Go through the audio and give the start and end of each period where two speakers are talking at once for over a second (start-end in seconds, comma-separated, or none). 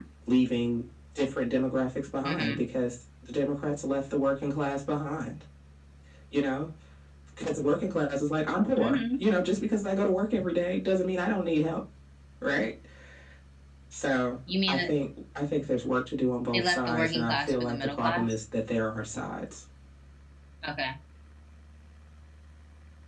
16.5-18.3